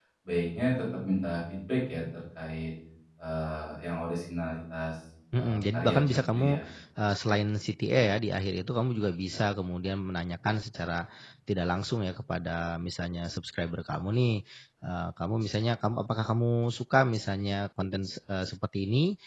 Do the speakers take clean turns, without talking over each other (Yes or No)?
No